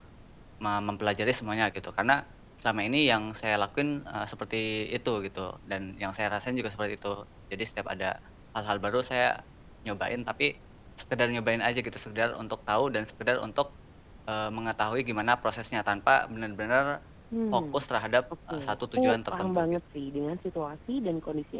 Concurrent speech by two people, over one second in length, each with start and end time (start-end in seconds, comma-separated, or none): 18.5-19.8